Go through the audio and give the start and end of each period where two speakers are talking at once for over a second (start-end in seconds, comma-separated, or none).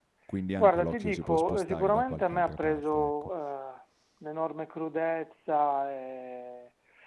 0.6-3.3